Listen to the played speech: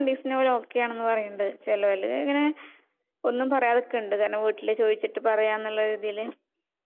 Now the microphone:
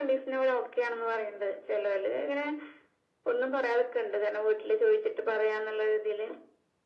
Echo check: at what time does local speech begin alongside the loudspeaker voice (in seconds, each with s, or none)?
none